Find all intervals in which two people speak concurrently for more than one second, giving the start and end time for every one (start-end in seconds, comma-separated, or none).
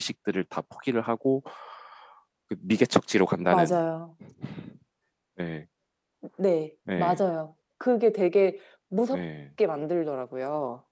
none